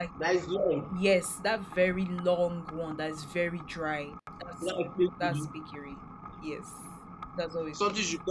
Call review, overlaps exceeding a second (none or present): none